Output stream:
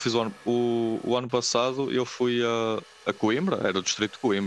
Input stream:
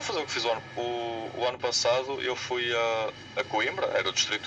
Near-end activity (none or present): none